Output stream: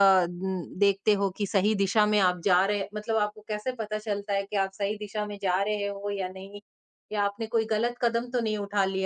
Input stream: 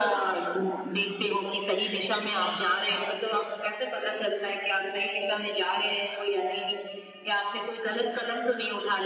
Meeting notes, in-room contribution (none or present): none